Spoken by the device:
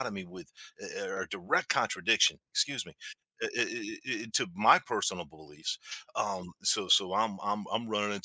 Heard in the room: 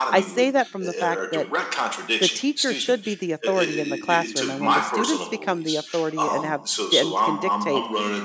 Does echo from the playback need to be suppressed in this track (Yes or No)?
Yes